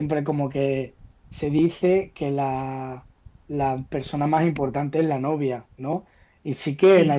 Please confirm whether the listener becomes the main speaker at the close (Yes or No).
No